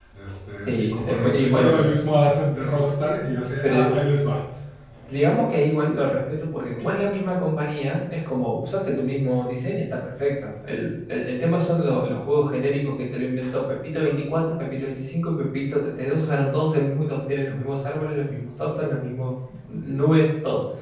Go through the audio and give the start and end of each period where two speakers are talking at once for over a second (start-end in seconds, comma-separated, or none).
0.7-1.9